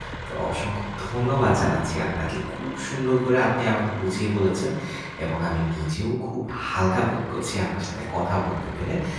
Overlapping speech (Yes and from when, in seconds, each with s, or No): No